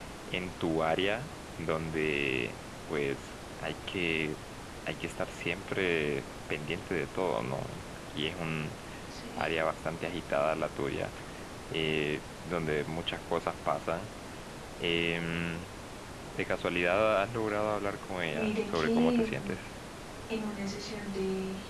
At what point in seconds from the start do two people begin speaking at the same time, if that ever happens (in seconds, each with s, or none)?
18.3 s